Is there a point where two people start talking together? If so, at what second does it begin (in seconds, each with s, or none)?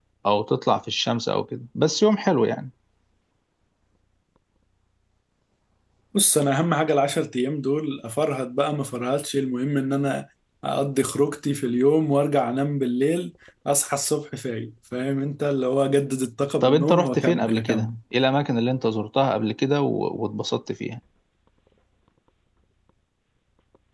16.6 s